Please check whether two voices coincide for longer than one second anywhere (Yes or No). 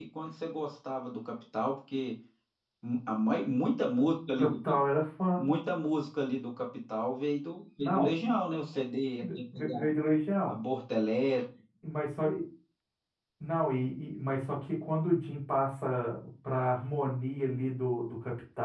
No